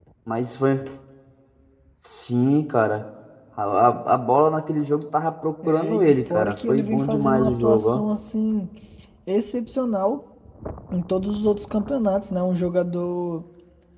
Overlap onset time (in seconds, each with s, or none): 5.6 s